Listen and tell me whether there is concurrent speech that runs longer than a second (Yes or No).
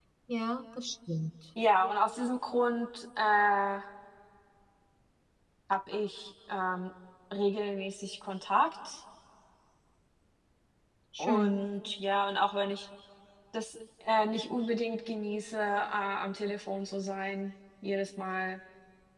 No